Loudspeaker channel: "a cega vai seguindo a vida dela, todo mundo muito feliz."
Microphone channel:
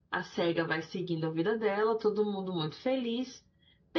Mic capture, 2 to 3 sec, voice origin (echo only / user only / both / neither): echo only